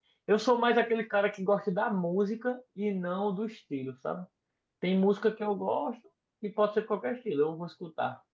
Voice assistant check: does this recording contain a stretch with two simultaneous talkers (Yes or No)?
No